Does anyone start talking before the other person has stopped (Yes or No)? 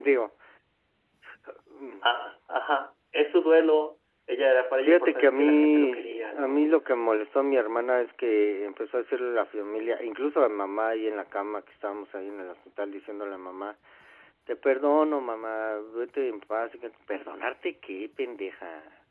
Yes